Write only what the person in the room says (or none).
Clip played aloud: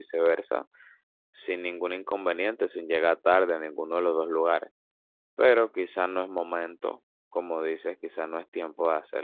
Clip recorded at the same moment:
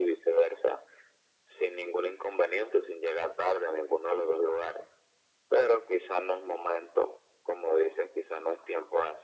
none